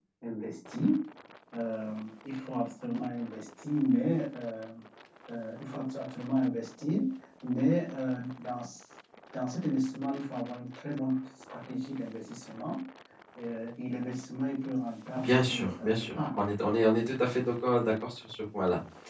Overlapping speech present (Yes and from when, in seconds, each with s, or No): Yes, from 15.2 s